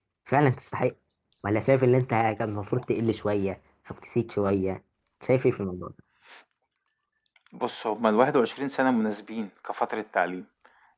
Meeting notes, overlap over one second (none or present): none